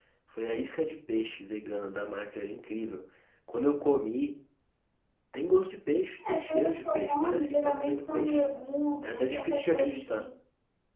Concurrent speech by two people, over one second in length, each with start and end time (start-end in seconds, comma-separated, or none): 6.3-8.4, 9.0-10.3